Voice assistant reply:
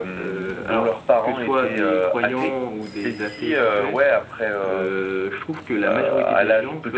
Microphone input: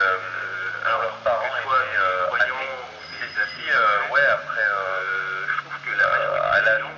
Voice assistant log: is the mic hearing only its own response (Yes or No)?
Yes